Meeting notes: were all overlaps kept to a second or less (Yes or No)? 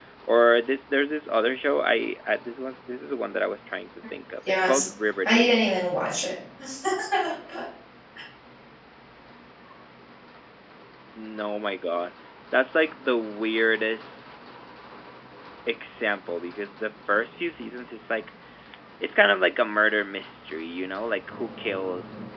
Yes